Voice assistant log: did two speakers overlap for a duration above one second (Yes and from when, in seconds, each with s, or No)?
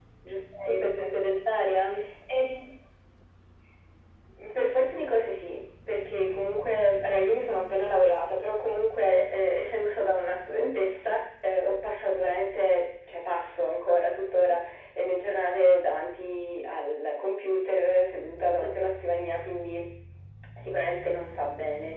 No